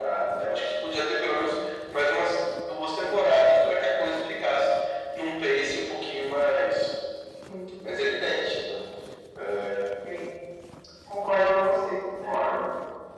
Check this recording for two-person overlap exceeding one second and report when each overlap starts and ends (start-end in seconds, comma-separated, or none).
none